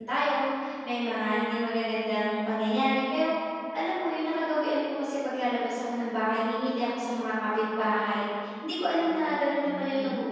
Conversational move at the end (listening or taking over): listening